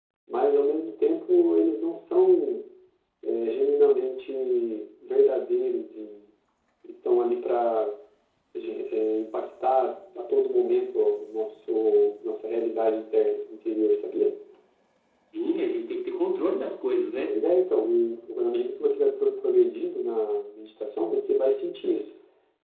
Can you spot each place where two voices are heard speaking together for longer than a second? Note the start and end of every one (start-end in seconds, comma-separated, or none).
none